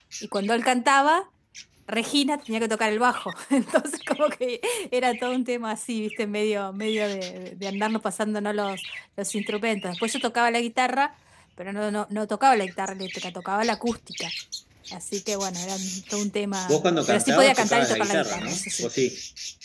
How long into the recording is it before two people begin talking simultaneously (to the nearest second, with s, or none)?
17 s